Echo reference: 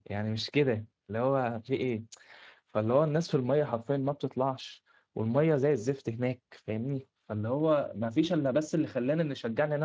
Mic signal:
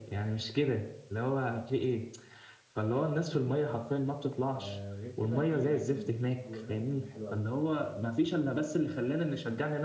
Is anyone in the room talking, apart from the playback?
Yes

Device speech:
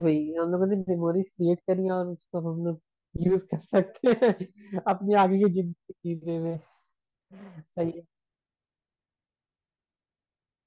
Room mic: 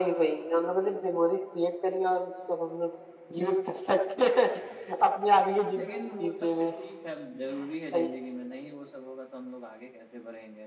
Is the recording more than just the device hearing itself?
Yes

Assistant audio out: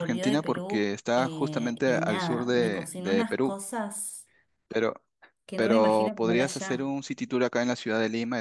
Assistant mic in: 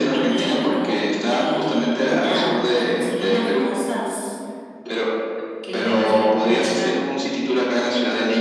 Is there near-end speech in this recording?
No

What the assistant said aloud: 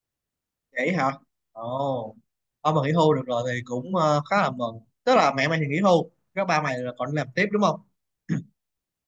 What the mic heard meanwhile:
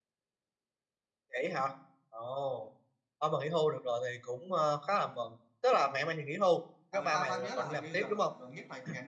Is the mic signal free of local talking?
No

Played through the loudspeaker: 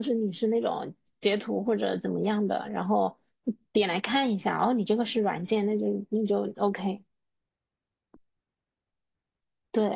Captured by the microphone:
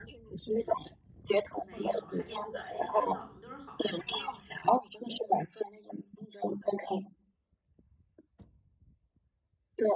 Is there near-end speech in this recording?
Yes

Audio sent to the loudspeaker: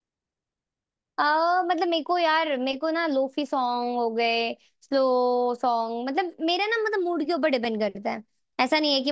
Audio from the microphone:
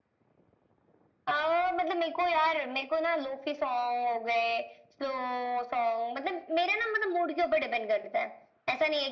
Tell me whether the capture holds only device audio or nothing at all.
Yes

